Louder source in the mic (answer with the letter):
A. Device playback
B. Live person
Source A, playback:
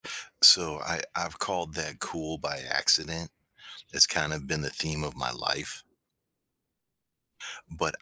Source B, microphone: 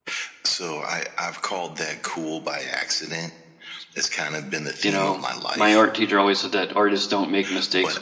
B